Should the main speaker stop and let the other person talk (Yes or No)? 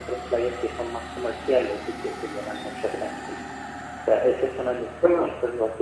No